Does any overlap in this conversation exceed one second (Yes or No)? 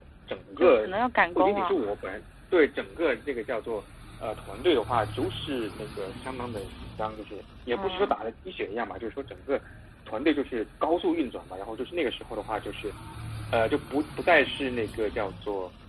No